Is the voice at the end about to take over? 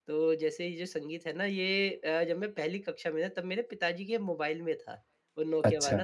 No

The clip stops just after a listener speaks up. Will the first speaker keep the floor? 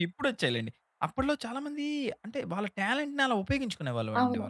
No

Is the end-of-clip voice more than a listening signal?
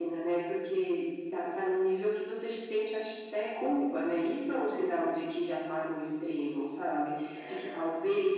No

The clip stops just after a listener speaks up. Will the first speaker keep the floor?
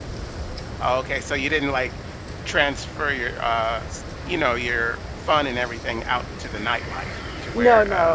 No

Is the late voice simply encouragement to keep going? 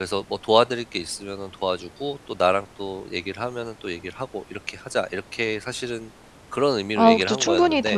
No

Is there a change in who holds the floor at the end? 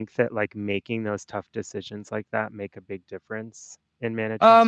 Yes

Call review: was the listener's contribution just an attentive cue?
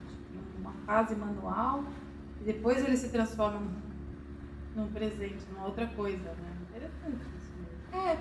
No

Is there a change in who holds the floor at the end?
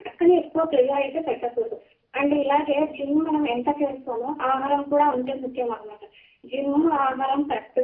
No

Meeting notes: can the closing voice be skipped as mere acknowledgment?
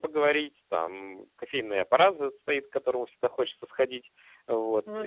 Yes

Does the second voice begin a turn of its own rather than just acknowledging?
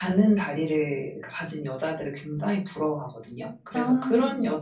No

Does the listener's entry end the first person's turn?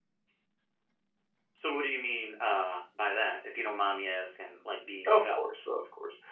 Yes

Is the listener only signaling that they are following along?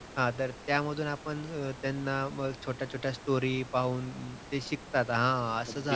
No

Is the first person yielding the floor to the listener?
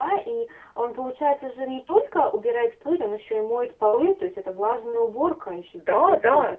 Yes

